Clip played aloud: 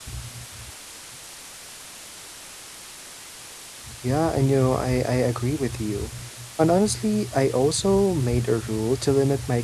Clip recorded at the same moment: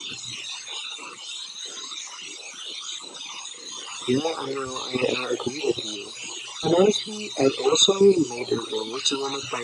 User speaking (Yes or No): No